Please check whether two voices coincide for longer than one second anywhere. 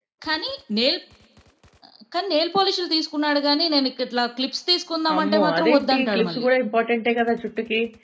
Yes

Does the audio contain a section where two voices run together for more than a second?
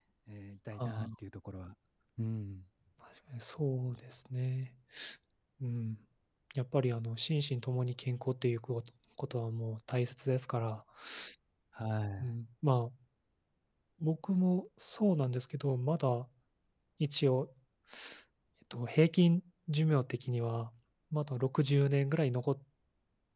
No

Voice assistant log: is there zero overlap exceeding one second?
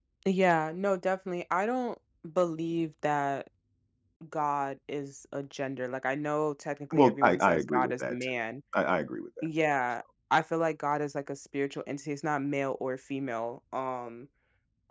No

